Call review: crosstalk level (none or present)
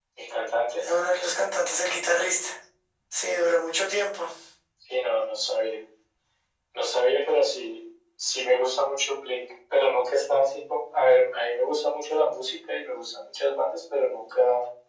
none